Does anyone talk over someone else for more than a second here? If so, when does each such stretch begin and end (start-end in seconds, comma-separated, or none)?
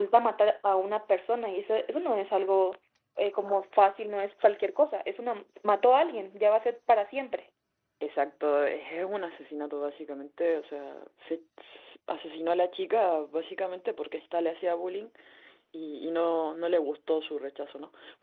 none